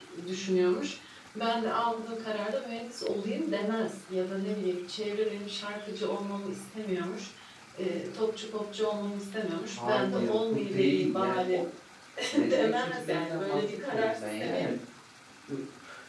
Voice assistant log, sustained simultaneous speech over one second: present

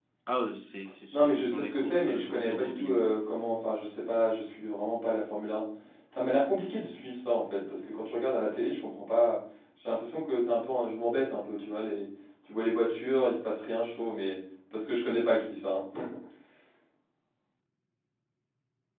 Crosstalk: present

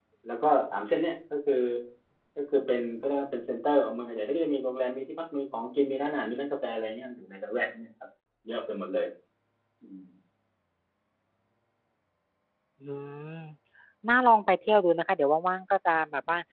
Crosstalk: none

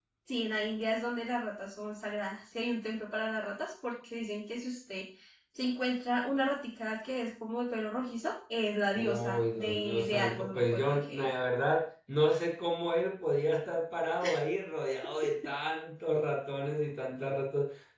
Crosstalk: present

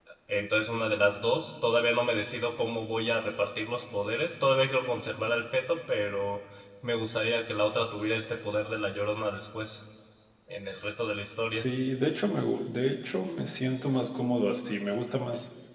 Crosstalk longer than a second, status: none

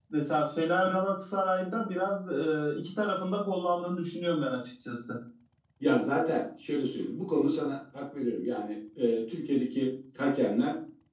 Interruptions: none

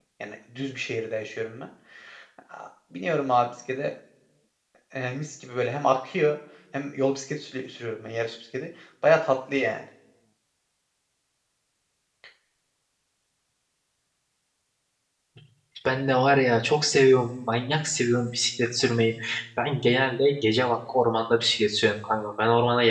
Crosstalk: none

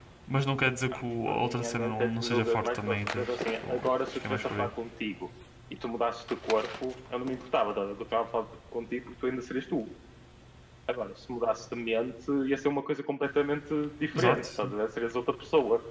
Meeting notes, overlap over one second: present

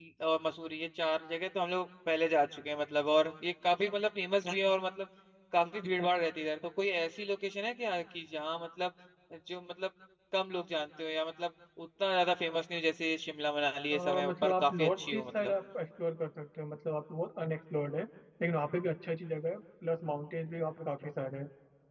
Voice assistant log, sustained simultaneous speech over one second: present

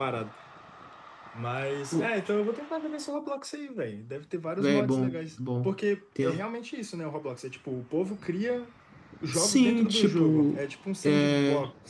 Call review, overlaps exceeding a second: present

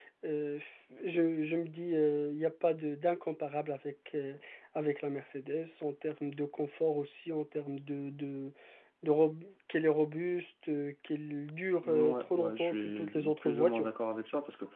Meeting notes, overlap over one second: present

